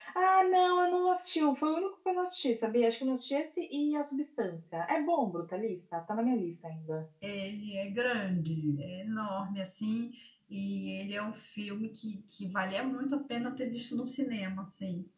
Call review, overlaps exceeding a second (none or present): none